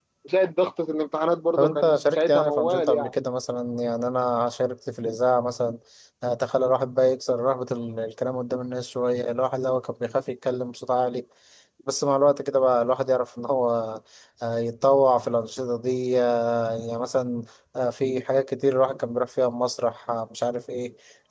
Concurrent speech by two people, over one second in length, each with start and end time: 1.6-3.1

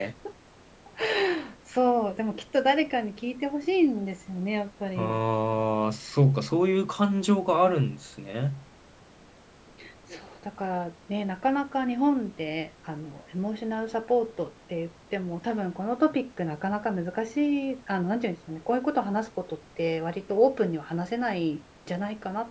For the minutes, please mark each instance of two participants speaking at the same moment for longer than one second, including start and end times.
none

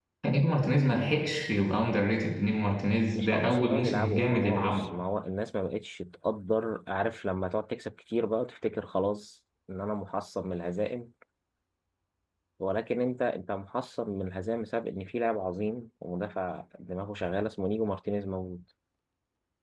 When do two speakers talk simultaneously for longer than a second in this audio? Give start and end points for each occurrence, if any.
3.2-4.8

